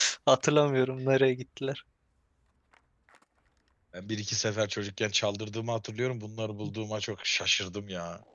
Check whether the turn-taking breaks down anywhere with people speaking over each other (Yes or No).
No